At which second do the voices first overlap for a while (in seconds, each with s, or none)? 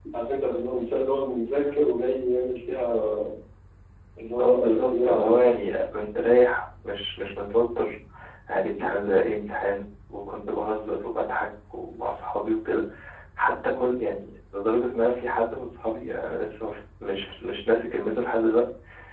4.4 s